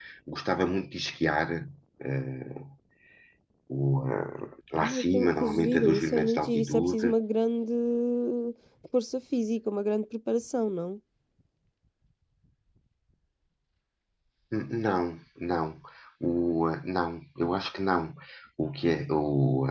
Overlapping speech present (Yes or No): Yes